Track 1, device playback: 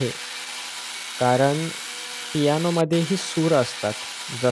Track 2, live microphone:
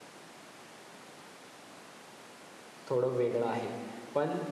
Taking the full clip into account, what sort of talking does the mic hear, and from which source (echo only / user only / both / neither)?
user only